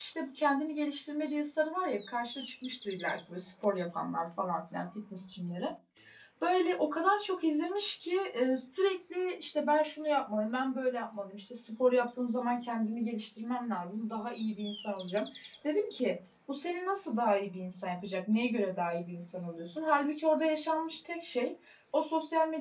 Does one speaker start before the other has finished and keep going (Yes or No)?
No